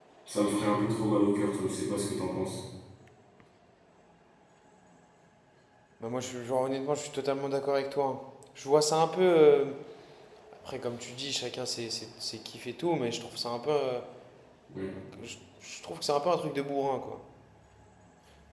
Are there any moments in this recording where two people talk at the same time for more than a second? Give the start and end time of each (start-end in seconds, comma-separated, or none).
none